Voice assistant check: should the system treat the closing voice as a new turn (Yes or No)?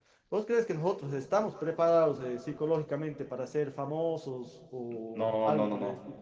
Yes